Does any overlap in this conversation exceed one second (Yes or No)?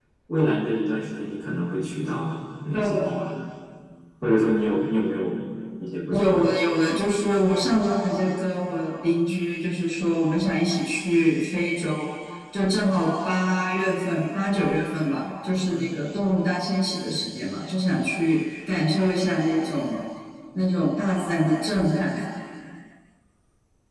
No